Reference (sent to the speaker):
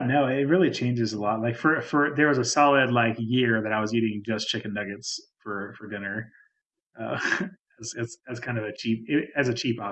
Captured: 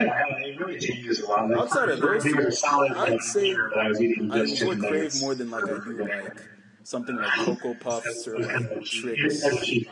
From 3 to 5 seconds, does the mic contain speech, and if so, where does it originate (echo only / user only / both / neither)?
both